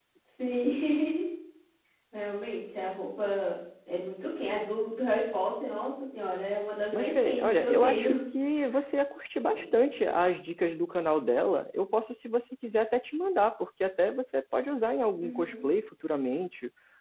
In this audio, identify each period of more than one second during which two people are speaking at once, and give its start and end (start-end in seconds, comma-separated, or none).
6.9-8.2